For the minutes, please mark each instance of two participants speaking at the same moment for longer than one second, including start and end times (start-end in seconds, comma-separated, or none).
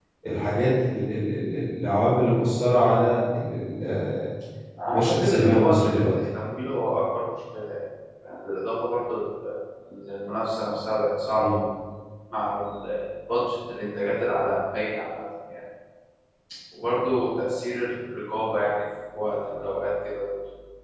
4.9-6.1